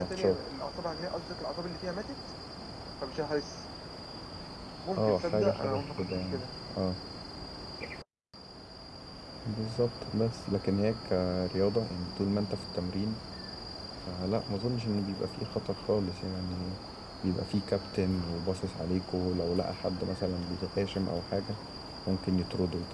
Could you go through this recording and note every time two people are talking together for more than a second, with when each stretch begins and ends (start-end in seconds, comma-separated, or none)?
4.9-6.5